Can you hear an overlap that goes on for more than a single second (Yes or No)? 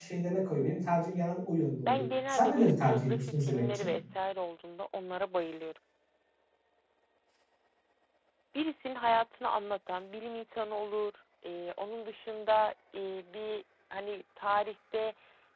Yes